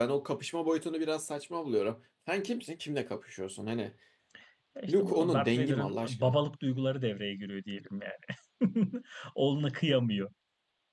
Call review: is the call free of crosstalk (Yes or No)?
No